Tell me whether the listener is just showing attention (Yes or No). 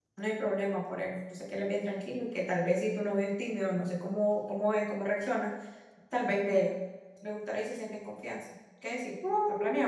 No